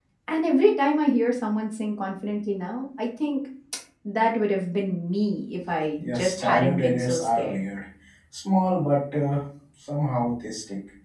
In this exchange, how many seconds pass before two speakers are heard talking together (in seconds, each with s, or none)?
6.2 s